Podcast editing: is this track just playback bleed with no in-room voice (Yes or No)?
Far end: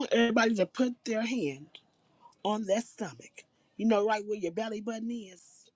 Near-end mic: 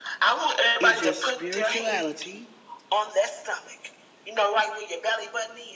No